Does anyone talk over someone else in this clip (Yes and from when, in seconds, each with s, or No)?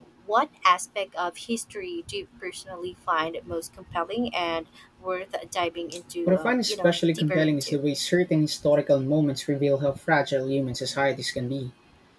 Yes, from 6.3 s